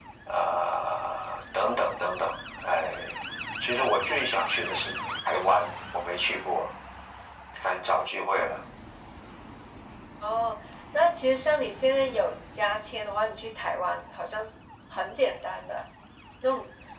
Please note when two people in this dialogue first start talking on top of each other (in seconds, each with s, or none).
none